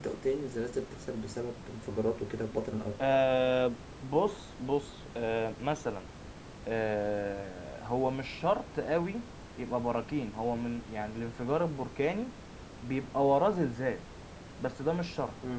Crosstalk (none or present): none